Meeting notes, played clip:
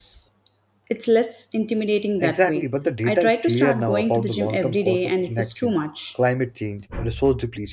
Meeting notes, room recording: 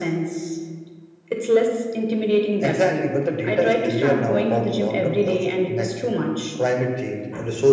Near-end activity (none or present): none